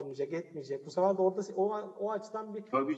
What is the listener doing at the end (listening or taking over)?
taking over